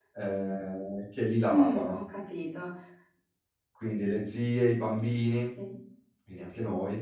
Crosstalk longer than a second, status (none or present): none